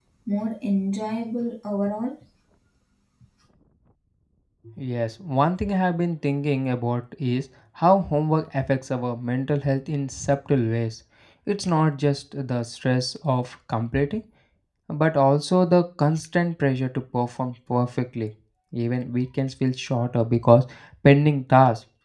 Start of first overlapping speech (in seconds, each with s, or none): none